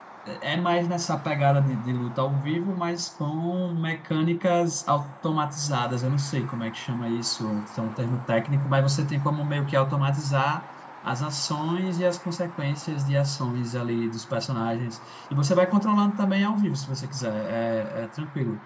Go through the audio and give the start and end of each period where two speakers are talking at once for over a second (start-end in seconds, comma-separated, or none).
none